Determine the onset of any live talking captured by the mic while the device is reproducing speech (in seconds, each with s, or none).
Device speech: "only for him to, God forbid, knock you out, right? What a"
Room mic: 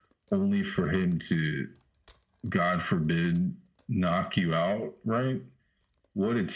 none